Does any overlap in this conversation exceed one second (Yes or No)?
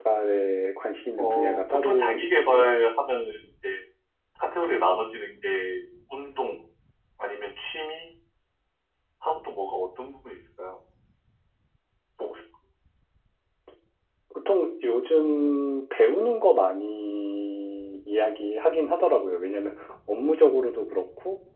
Yes